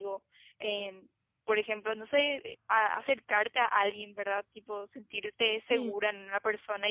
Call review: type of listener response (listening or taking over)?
listening